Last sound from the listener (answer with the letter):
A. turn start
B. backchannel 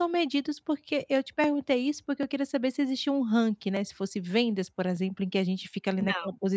B